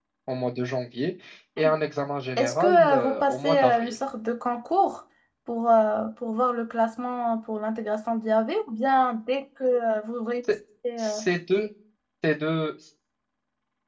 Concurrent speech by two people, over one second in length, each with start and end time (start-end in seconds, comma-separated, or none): 2.4-4.0